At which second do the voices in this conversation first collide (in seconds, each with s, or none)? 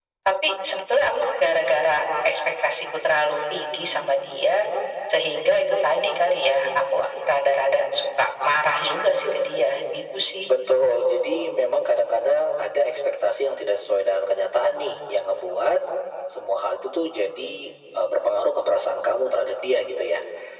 none